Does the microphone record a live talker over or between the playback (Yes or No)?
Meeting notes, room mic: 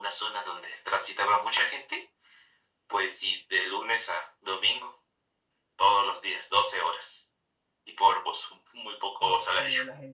Yes